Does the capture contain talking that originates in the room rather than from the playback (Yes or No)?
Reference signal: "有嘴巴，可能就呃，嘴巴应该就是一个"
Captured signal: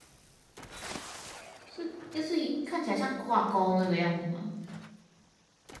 Yes